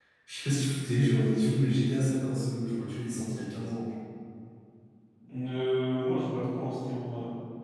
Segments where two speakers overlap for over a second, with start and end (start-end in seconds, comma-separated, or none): none